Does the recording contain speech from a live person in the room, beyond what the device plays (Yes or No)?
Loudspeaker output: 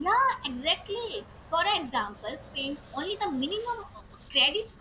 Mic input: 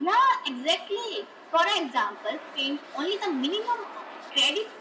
No